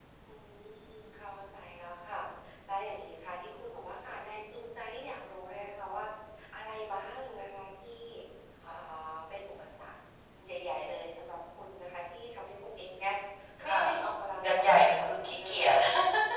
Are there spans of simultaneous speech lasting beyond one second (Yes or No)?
Yes